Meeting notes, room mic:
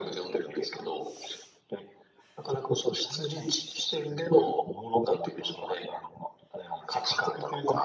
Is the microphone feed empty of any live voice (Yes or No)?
Yes